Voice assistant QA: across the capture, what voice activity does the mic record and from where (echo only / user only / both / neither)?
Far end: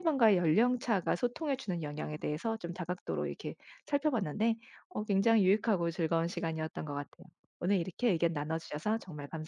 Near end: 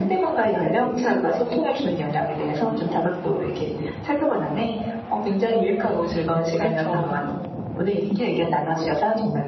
both